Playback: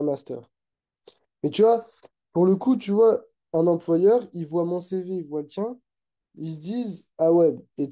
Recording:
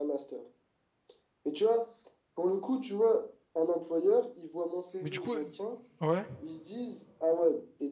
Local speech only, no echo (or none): Mais du coup, euh, ouais.